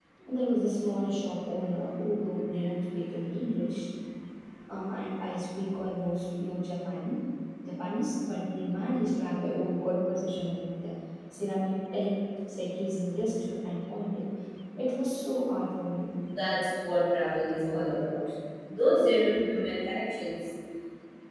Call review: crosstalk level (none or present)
none